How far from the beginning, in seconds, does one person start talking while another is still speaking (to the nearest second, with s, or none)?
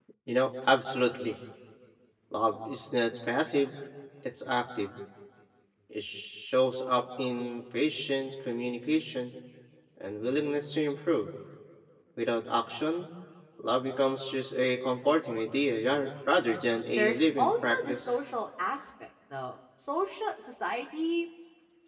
17 s